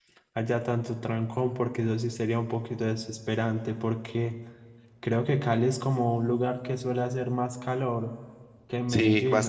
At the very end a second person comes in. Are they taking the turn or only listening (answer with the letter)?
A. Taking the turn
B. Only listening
A